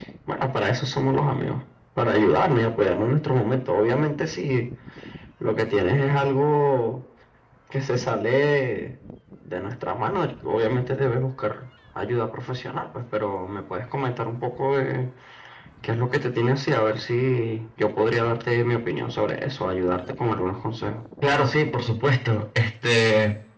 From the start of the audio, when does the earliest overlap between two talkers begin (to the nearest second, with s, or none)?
none